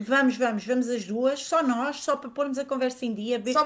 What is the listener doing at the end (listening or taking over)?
listening